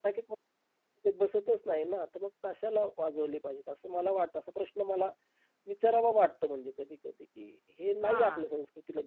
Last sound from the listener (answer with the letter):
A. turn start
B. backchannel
B